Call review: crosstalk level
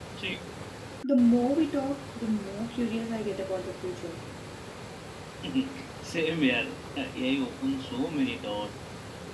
none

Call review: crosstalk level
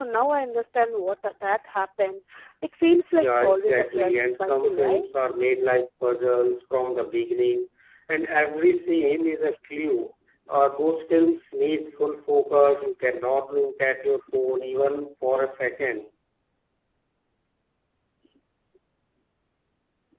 present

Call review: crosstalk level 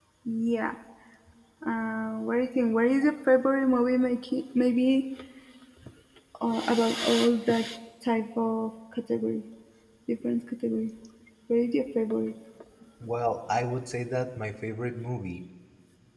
none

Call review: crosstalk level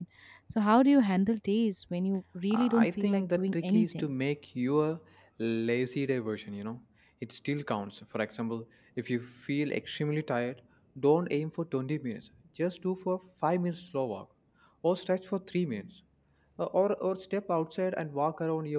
present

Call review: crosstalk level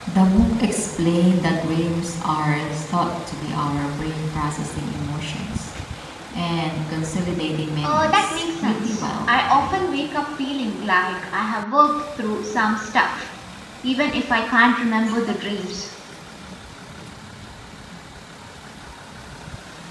present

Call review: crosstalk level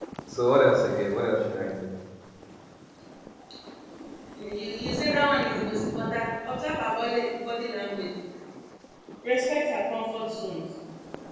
none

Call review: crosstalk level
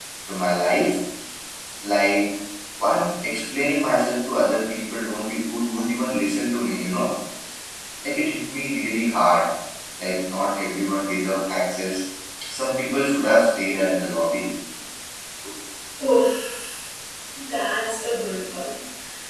none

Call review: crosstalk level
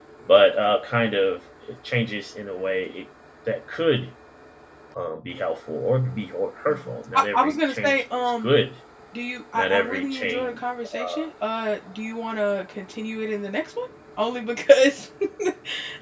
present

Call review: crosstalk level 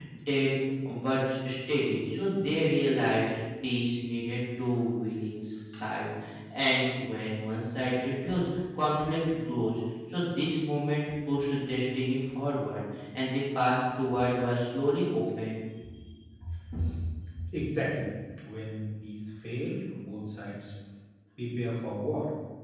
none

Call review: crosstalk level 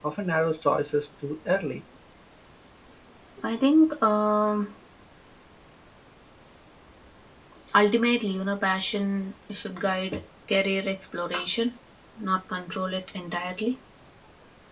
none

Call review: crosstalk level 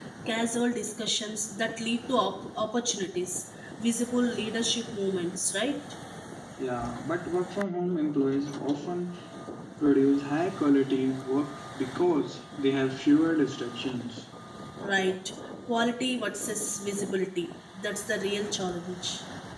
none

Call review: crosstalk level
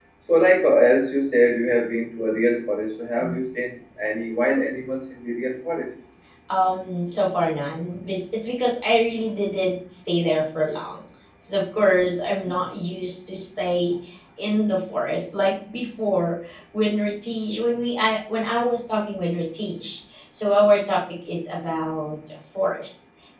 none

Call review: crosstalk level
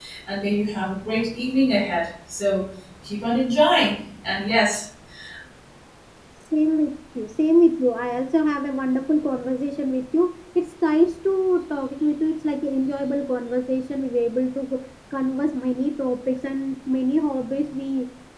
none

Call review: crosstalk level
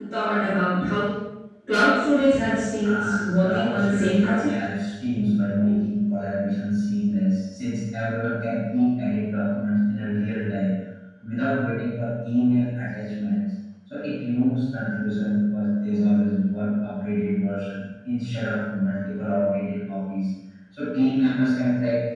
present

